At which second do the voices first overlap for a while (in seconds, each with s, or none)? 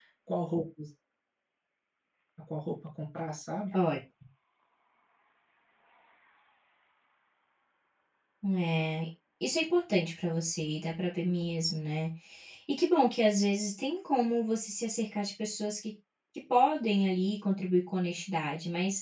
none